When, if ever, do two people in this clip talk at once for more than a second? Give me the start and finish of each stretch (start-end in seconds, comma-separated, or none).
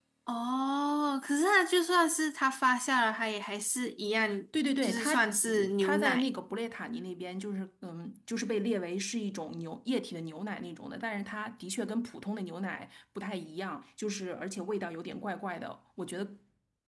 4.8-6.3